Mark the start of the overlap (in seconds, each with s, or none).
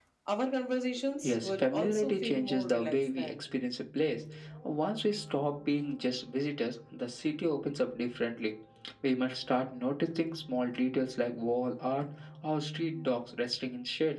1.2 s